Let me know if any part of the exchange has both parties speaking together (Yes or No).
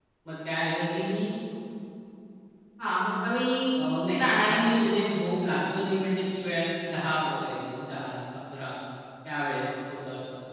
Yes